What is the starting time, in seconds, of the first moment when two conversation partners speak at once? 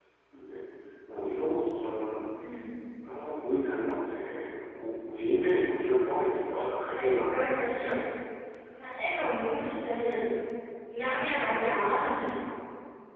7 s

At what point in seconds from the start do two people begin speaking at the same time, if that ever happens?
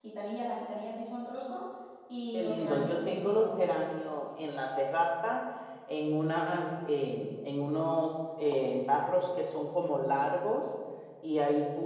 2 s

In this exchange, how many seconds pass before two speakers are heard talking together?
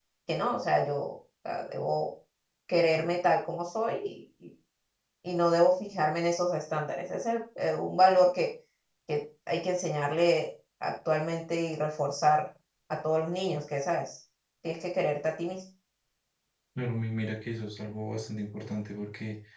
none

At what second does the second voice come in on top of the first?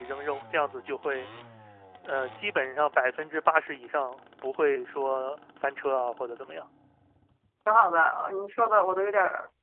none

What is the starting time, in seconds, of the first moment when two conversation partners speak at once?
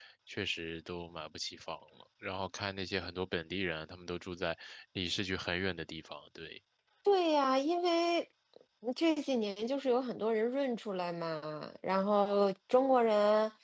none

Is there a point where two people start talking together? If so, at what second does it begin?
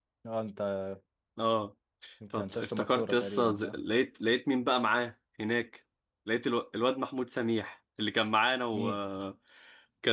2 s

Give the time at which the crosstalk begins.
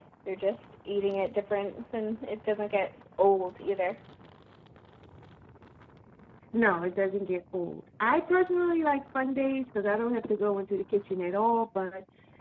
none

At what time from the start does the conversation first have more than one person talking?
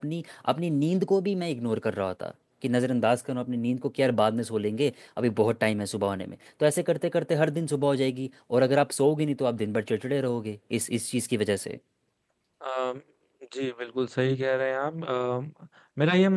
none

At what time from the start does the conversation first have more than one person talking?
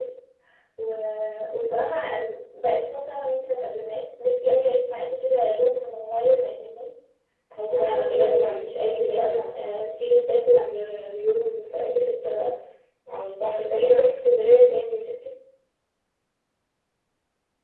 8 s

